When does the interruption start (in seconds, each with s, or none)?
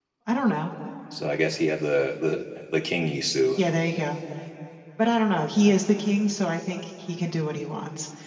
none